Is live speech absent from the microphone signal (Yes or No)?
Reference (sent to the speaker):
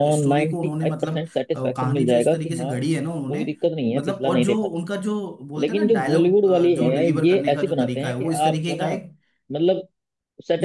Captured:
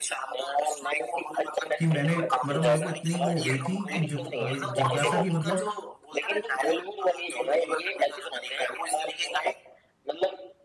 No